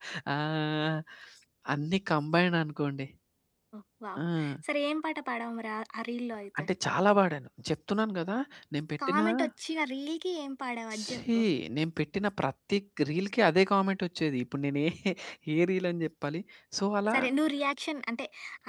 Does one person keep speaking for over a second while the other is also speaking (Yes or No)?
No